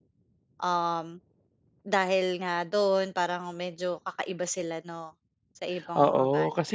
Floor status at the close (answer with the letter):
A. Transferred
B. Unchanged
A